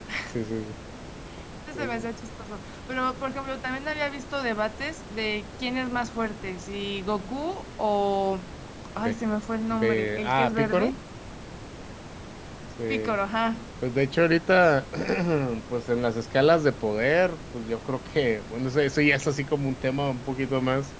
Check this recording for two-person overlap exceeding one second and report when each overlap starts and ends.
9.7-10.9

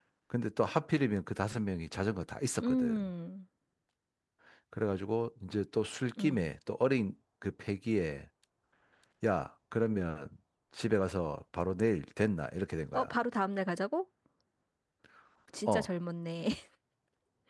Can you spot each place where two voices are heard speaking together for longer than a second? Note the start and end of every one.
none

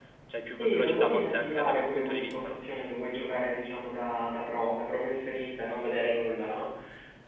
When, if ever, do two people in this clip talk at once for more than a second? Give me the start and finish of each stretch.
0.6-2.6

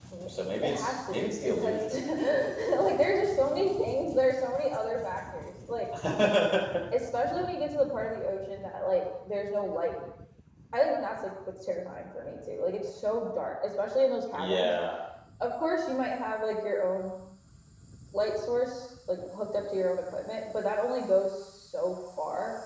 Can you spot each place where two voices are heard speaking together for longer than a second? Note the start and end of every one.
0.6-2.5

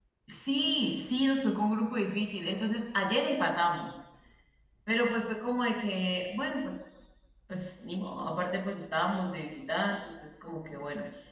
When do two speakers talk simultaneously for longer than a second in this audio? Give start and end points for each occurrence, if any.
none

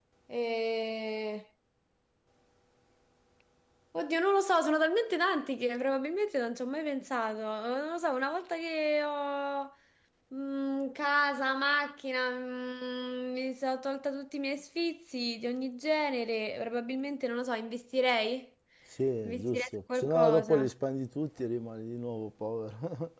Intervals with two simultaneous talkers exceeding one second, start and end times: 19.2-20.6

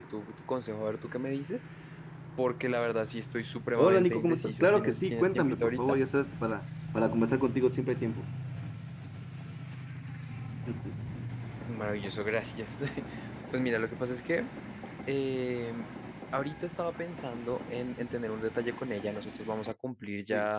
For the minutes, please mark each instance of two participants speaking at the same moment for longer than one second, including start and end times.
3.8-6.0

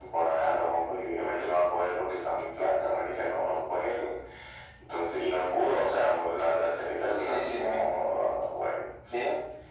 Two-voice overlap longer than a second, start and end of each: 7.0-8.3

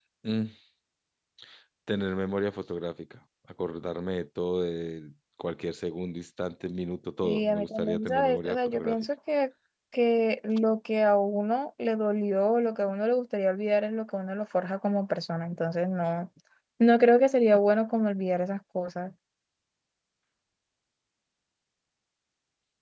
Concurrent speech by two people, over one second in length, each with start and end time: 7.2-9.0

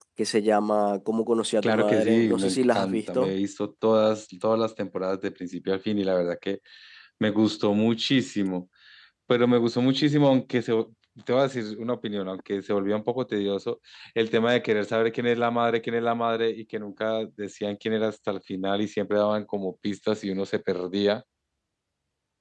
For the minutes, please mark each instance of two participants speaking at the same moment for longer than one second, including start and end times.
1.6-3.3

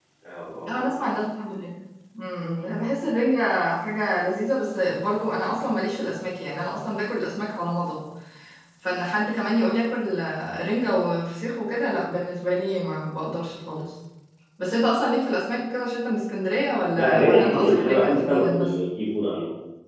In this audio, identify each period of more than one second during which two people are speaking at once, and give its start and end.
16.9-18.7

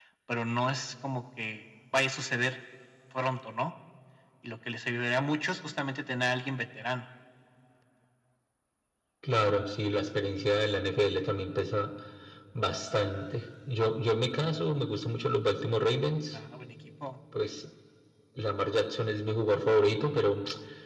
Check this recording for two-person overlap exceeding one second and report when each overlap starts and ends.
none

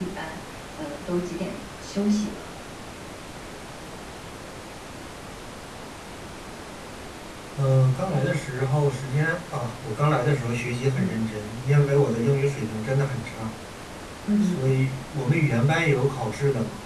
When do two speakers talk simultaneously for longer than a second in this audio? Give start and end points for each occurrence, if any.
none

